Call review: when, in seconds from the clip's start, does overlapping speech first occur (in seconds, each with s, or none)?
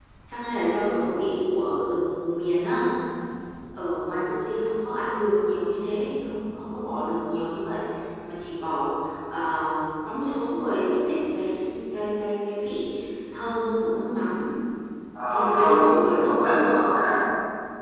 15.3 s